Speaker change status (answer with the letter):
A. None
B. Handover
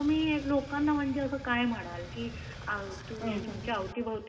A